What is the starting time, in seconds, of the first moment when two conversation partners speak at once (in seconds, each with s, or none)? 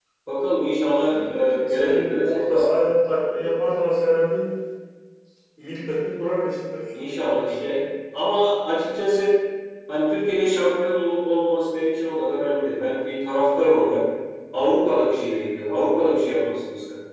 1.0 s